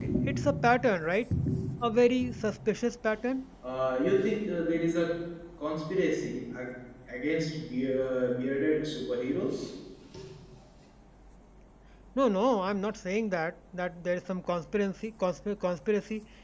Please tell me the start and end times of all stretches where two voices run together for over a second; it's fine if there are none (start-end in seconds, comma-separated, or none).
none